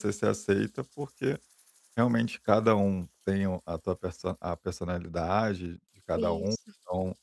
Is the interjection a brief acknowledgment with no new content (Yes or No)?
Yes